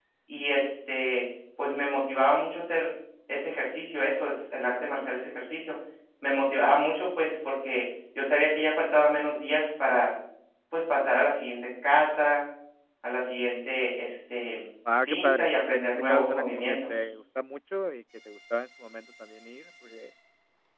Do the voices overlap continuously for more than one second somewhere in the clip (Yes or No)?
Yes